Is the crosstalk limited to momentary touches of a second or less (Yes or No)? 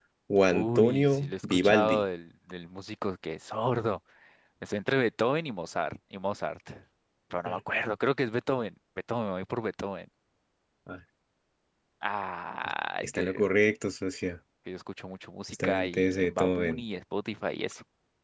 No